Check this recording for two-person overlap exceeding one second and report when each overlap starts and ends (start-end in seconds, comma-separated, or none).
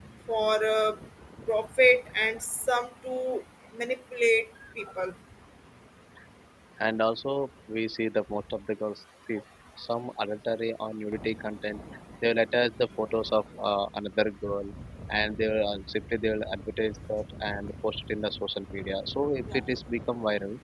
none